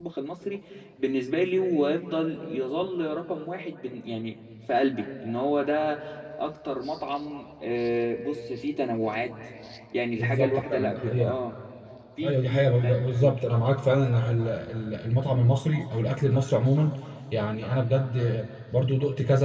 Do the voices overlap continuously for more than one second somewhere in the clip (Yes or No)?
Yes